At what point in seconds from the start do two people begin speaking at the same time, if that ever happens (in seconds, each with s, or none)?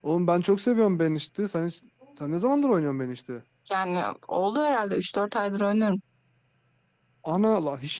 none